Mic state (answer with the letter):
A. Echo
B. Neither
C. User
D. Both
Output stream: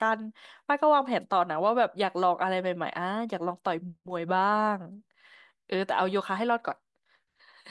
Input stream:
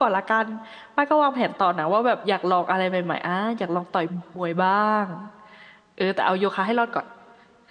A